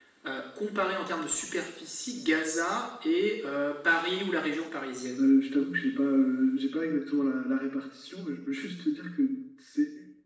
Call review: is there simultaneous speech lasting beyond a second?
No

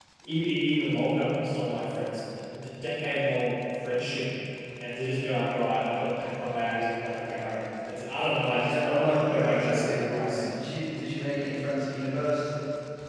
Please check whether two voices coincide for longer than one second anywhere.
Yes, from 8.5 s

